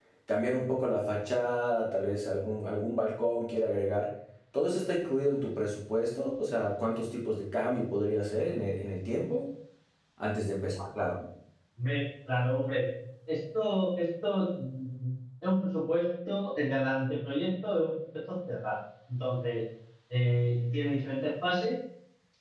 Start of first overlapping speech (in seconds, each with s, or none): none